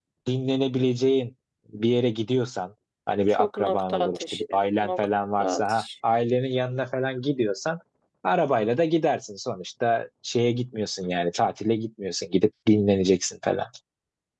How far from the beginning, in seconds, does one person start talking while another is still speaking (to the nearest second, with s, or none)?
3 s